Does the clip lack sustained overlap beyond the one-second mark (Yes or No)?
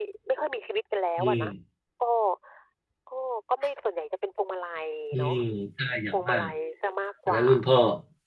Yes